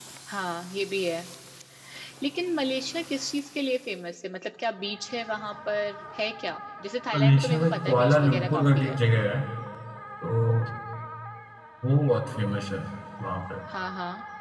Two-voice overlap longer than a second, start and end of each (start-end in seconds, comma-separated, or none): 7.1-9.0